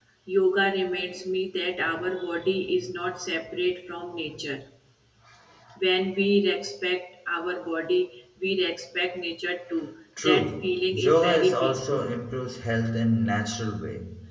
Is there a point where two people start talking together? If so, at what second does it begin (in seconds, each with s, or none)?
10.2 s